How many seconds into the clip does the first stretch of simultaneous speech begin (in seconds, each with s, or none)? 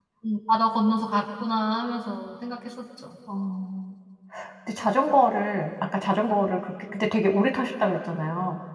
none